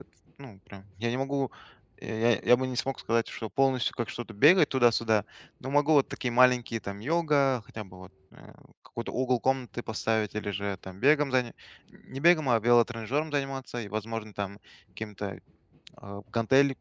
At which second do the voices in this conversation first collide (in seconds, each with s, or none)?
none